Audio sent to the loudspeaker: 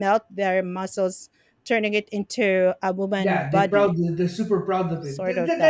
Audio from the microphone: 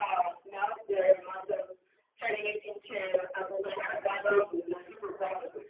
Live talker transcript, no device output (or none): none